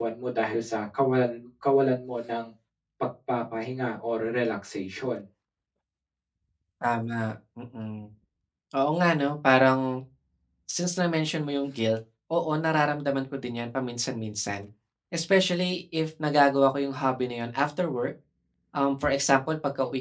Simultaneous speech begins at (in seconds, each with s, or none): none